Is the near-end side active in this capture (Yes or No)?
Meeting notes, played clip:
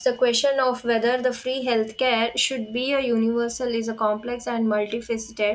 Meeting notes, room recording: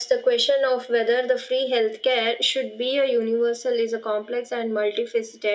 No